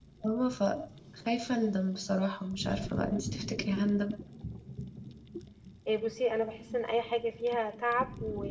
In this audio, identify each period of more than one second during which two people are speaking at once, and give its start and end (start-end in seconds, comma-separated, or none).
none